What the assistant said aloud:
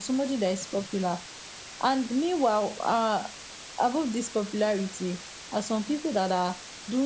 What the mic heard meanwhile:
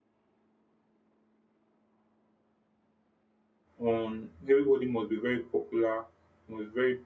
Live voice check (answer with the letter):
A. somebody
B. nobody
A